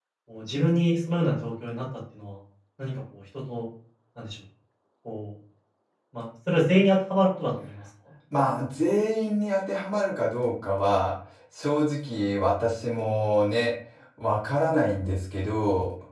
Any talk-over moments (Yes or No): No